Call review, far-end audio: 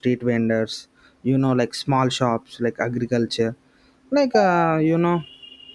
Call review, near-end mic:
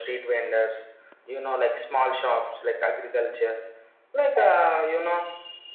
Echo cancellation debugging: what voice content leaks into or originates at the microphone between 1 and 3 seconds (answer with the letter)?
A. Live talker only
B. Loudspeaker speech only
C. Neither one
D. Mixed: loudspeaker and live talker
B